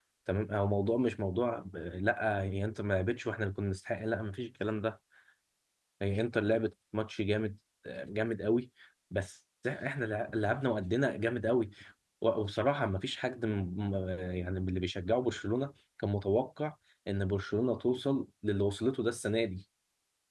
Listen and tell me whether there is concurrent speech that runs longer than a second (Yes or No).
No